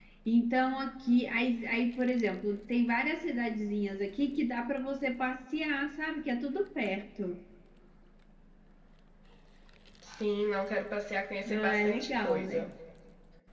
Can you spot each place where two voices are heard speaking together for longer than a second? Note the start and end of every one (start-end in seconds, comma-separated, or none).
11.5-12.7